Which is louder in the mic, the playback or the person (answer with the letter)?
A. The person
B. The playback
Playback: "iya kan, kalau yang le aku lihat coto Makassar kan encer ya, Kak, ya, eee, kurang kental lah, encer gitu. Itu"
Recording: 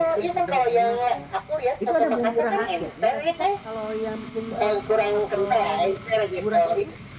B